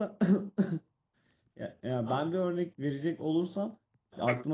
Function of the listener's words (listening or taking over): listening